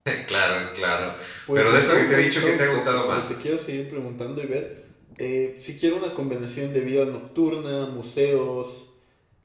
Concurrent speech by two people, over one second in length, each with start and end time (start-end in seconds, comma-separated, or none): 1.6-3.3